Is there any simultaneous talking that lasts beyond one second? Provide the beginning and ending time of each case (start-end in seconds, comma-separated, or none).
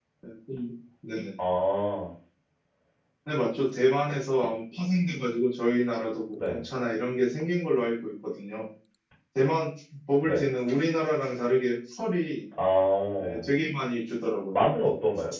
none